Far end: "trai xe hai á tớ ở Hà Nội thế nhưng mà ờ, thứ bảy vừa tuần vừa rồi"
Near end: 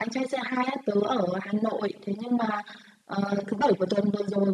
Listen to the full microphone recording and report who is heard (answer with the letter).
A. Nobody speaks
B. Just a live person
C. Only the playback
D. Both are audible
C